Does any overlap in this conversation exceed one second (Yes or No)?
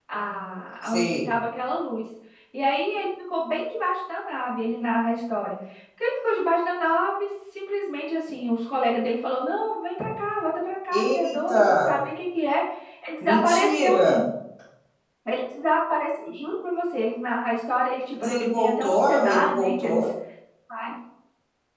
Yes